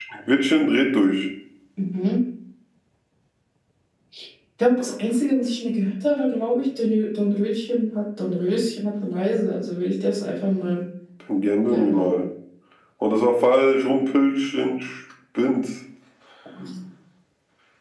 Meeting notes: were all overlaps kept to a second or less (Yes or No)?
Yes